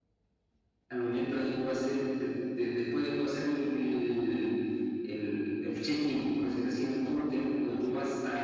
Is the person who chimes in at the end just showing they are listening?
Yes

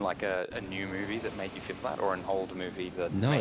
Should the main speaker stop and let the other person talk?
Yes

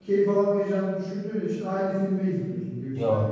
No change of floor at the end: Yes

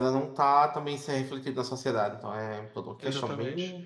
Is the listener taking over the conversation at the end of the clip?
Yes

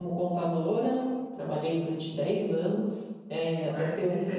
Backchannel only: No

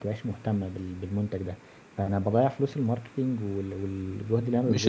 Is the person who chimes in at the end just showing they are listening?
No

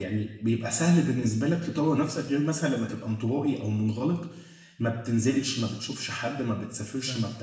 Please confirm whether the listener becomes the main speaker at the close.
No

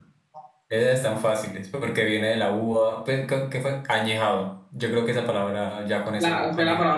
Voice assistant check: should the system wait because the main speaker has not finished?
No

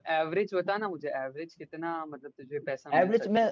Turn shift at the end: Yes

